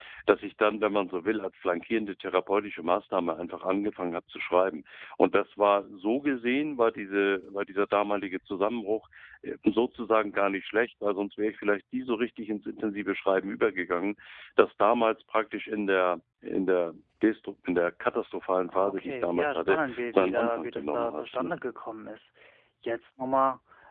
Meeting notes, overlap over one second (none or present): present